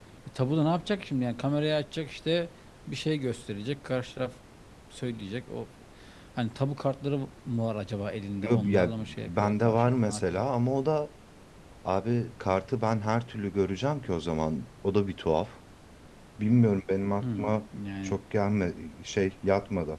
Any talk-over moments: Yes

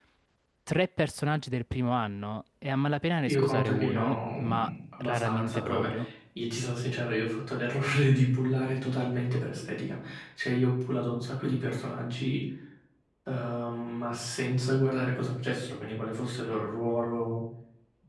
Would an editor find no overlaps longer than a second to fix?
No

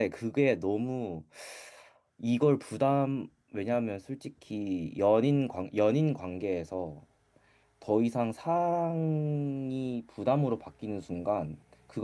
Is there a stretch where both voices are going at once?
No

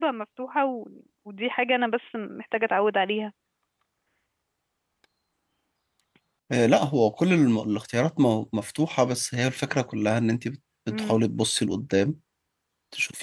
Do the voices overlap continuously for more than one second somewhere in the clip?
No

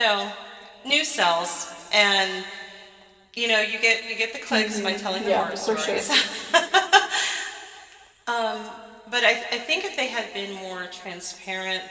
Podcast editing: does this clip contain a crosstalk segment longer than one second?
Yes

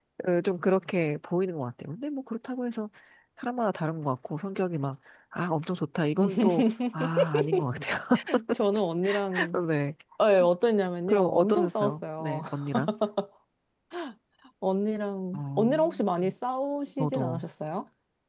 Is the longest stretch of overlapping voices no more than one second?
No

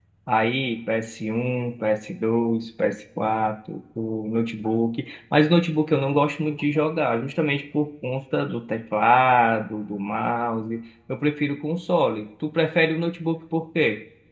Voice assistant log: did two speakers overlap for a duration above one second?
No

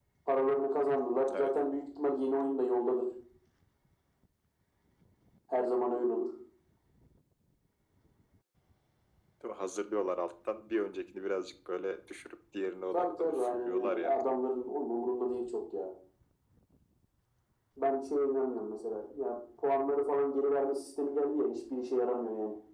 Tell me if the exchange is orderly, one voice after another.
No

